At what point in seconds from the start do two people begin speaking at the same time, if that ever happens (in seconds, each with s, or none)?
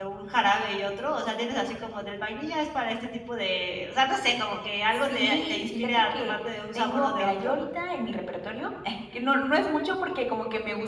4.9 s